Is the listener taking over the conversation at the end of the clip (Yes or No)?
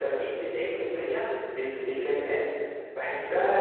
Yes